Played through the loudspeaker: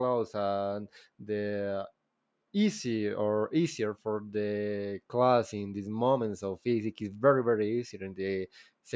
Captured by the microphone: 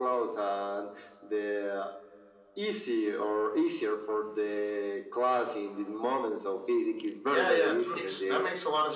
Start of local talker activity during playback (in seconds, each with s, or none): 7.3 s